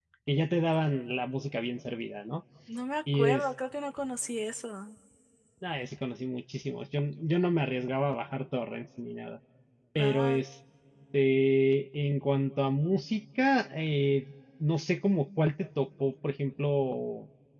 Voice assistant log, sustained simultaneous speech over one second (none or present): none